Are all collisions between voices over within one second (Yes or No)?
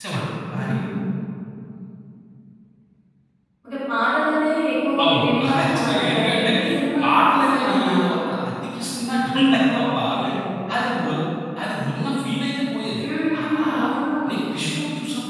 No